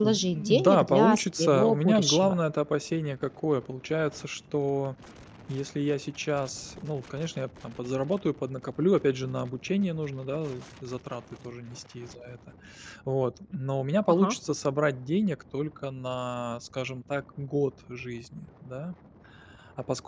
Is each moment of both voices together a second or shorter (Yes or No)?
No